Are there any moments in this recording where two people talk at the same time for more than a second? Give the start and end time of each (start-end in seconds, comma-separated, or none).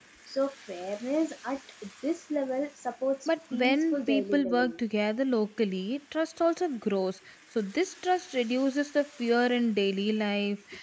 3.3-4.8